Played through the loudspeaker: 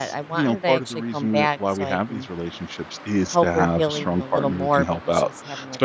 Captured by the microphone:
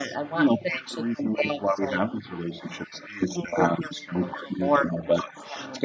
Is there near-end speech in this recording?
No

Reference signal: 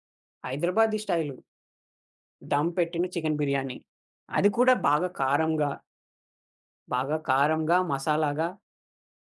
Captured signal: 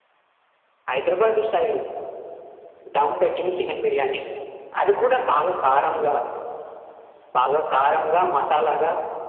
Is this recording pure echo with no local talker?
Yes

